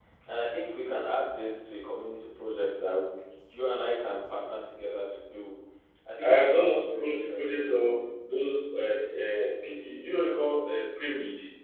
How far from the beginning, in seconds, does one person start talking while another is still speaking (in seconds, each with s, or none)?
6.2 s